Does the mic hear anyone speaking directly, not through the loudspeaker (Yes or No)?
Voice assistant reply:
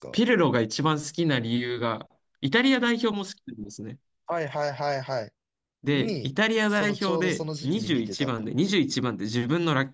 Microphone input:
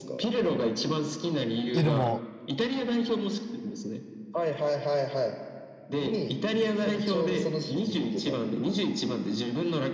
Yes